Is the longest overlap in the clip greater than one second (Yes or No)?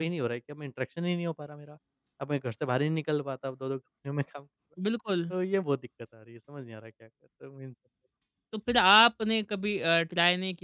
No